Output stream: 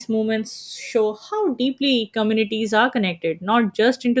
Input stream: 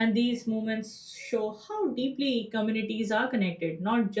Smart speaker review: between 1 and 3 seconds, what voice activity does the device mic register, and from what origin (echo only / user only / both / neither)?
echo only